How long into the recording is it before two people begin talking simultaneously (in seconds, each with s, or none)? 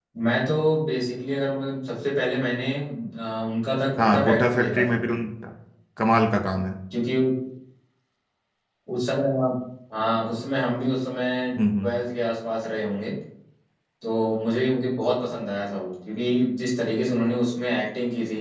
4.0 s